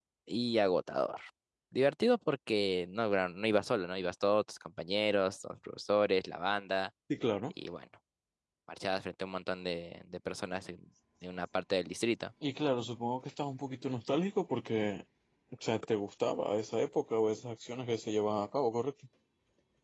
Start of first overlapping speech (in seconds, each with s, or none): none